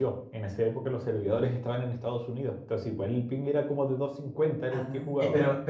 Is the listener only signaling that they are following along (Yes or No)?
No